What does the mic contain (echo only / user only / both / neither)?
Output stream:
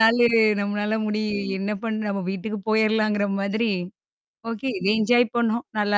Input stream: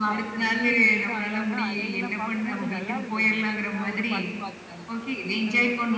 both